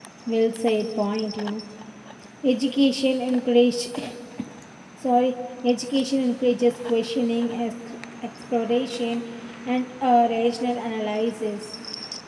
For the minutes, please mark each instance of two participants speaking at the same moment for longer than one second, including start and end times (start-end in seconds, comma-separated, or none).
none